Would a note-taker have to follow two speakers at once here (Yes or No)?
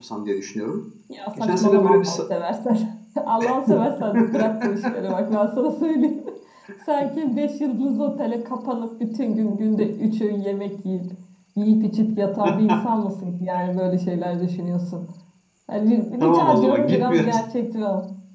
Yes